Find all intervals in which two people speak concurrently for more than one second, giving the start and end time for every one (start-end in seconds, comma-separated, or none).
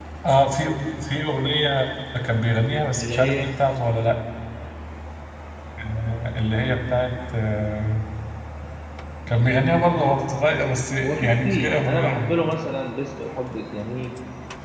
11.0-12.3